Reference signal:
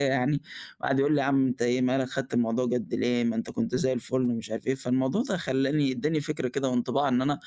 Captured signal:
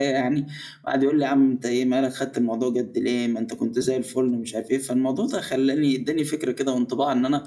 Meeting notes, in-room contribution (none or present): none